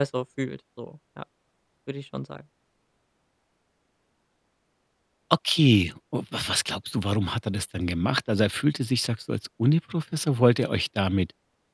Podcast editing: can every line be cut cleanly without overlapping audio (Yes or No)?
Yes